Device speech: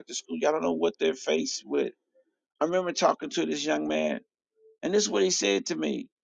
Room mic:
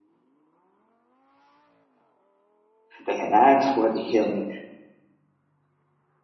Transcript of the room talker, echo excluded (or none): They had asked for the healing,